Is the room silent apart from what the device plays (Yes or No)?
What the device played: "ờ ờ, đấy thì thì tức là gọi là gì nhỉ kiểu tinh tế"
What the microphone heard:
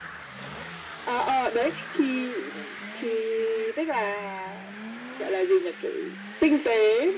Yes